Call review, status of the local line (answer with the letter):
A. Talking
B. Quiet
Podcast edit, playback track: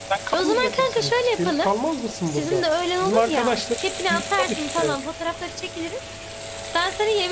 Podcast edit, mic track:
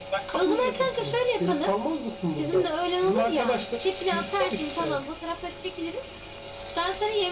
B